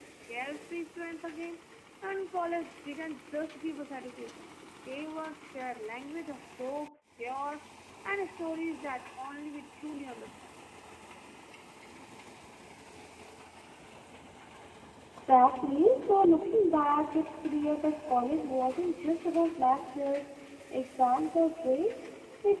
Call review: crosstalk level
none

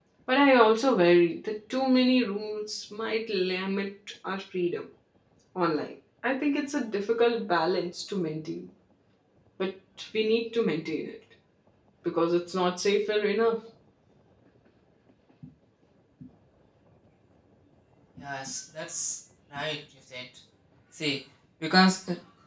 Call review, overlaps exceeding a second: none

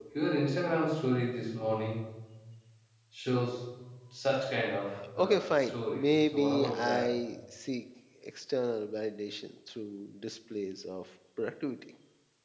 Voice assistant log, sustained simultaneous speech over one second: present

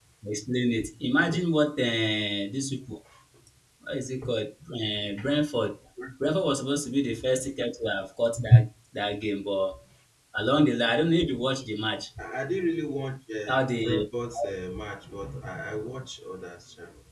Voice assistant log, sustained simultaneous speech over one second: none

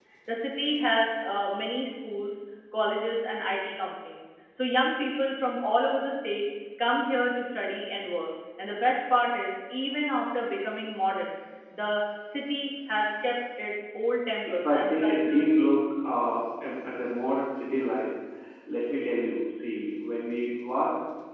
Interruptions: present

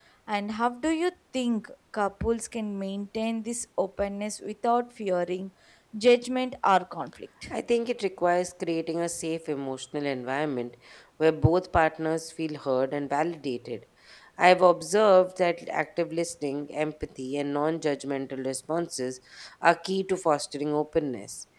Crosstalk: none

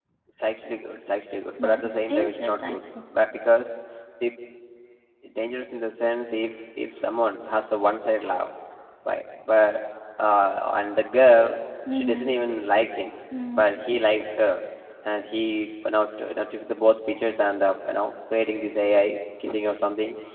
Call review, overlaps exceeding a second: present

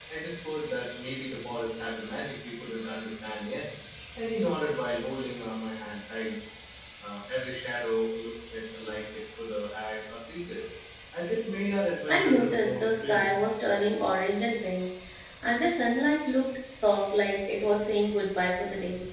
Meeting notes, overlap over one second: present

